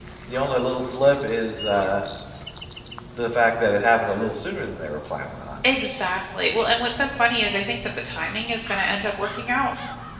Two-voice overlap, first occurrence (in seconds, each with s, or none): none